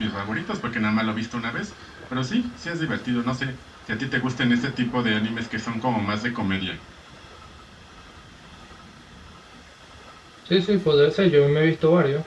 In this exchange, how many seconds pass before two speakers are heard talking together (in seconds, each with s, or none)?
none